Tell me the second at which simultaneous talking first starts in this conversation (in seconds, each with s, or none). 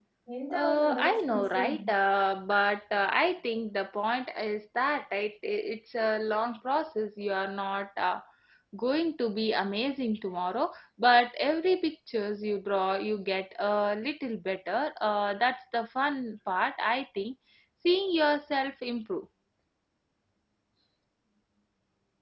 0.5 s